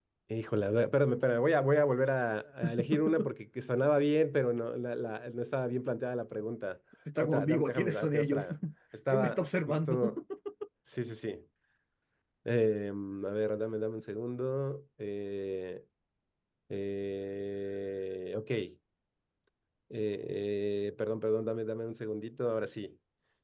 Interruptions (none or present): present